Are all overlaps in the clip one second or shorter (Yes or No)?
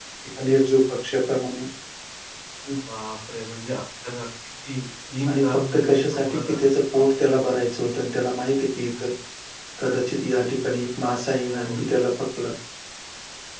No